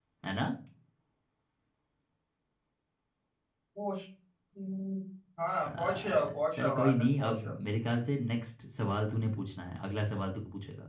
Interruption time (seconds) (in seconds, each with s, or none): 5.7 s